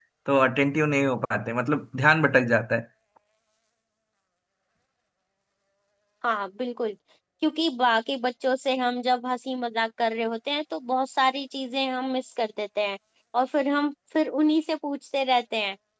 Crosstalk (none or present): none